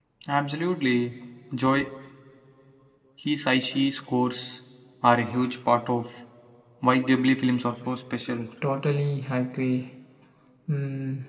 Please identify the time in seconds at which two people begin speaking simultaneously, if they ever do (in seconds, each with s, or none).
none